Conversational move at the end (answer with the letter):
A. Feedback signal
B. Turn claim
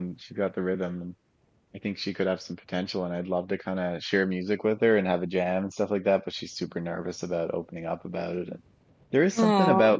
A